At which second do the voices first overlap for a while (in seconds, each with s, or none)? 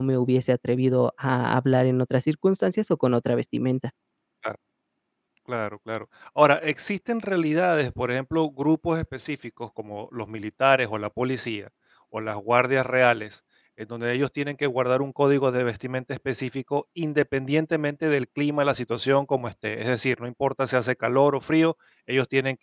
none